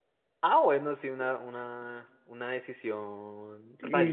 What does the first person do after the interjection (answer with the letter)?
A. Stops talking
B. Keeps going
A